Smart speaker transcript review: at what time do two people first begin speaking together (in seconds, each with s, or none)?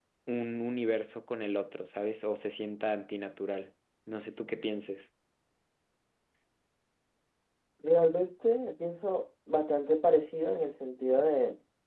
none